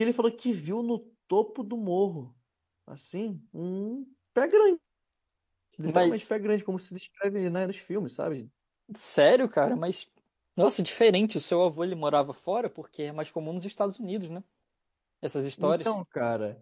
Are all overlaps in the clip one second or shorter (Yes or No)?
Yes